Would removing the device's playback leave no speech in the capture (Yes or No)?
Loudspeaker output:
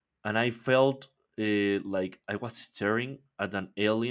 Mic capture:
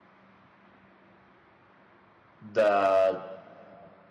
No